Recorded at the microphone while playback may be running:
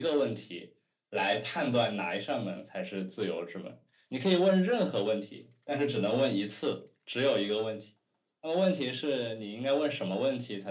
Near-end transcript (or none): none